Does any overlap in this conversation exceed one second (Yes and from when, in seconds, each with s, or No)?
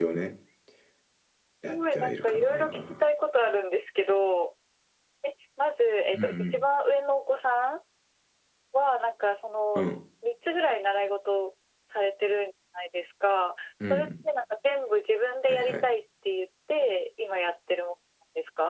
Yes, from 1.7 s